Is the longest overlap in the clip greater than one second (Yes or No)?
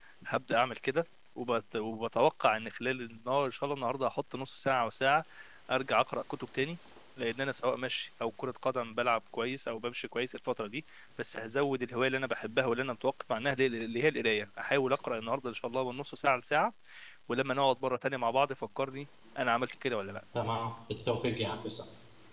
No